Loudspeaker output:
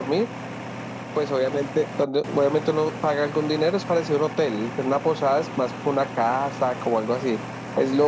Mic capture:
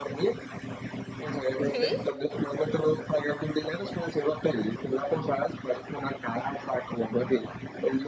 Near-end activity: present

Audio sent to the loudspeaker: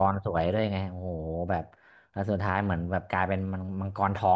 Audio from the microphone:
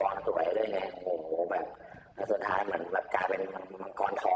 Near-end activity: none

